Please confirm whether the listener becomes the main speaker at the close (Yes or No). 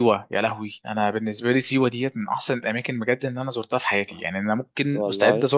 No